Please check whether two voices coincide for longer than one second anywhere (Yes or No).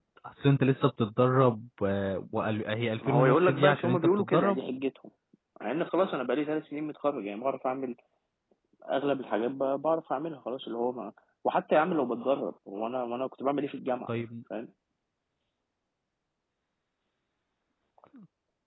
Yes